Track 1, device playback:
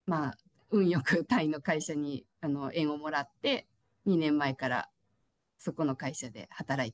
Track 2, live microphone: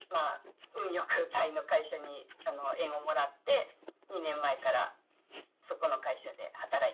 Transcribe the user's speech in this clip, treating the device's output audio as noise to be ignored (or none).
none